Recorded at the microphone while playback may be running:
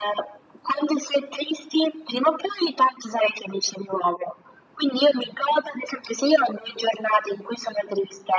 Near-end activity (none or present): none